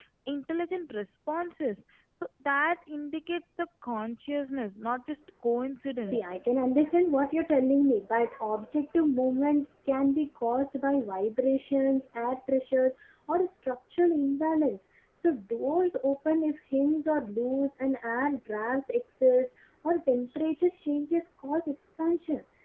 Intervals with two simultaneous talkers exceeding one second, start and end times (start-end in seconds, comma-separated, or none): none